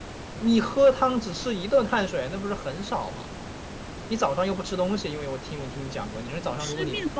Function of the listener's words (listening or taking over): taking over